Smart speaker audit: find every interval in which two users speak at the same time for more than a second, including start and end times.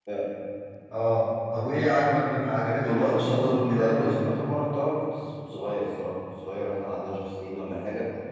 2.8-4.3

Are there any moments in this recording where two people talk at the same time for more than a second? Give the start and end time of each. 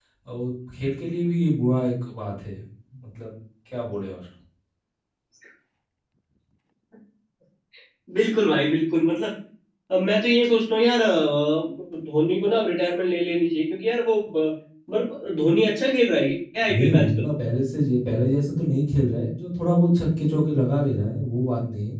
none

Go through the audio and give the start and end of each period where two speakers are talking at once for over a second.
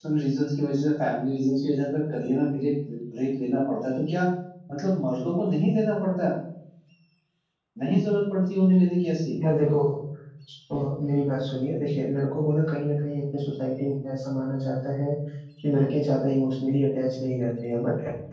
none

